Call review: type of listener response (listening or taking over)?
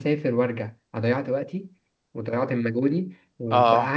listening